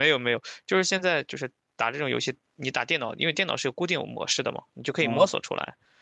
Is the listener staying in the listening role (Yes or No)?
Yes